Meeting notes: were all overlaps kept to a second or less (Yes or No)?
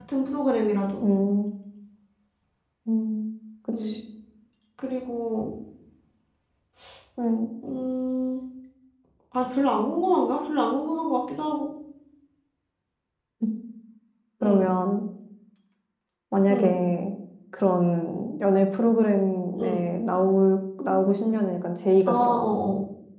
Yes